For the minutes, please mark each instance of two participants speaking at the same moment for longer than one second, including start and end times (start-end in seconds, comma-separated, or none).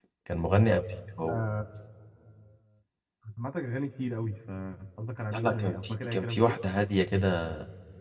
5.3-6.6